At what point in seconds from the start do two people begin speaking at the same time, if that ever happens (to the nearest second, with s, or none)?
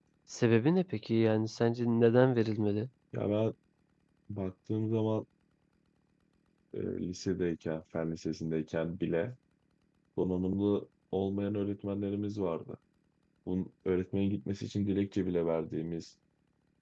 none